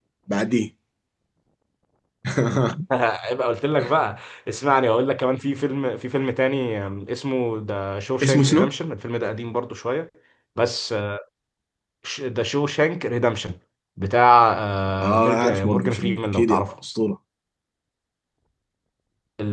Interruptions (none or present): present